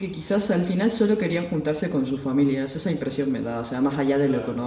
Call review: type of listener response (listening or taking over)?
listening